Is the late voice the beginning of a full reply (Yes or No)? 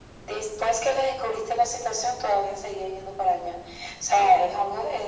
No